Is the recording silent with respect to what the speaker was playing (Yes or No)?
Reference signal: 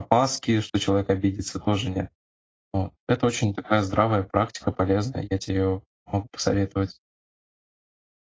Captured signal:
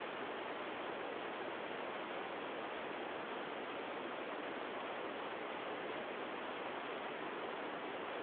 Yes